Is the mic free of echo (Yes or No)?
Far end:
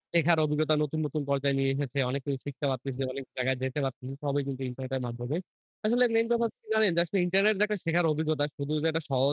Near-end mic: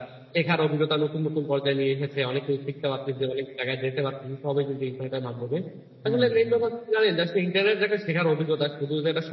No